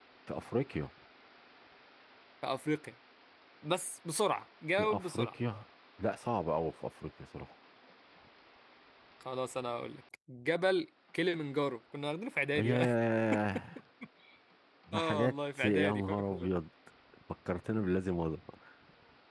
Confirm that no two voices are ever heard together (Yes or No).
No